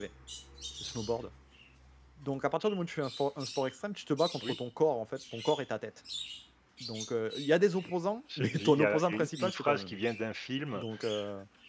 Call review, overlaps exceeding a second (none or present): present